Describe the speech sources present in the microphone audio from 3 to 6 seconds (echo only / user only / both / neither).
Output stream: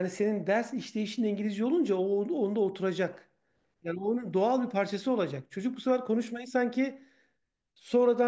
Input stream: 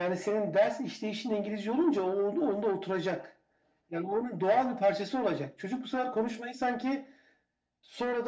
echo only